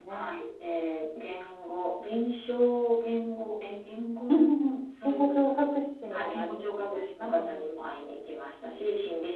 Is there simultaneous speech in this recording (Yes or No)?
Yes